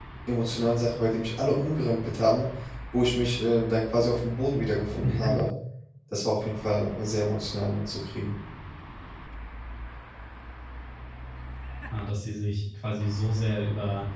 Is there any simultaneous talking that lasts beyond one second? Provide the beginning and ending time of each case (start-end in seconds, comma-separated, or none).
none